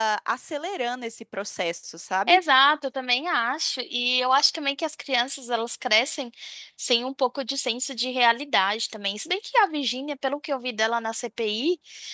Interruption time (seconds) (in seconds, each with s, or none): none